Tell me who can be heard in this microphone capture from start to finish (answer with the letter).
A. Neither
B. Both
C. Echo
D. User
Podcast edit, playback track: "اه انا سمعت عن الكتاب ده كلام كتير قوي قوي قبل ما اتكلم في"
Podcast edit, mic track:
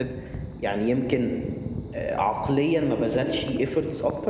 D